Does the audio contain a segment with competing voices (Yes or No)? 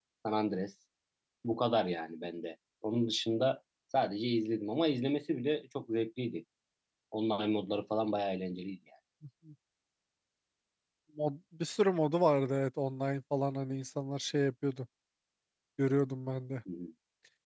No